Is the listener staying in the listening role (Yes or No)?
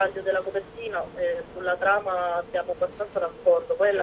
No